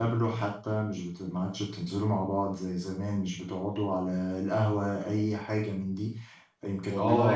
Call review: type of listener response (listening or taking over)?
listening